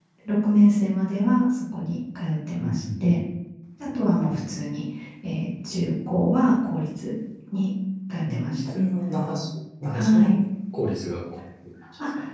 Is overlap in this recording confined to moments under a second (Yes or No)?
Yes